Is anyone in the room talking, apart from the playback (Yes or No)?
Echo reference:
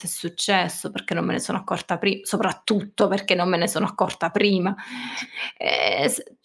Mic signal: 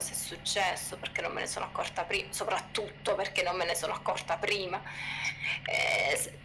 No